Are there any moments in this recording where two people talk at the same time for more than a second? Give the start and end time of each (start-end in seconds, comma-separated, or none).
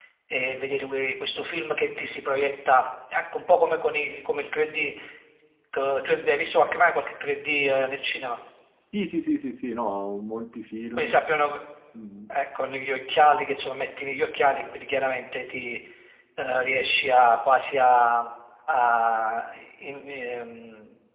none